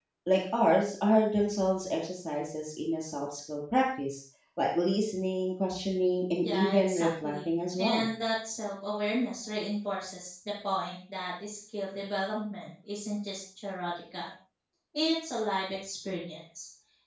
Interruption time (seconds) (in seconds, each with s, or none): 6.4 s